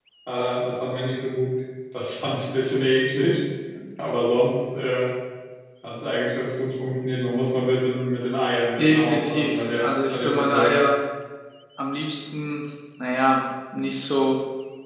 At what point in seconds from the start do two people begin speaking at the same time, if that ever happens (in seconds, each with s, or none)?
8.8 s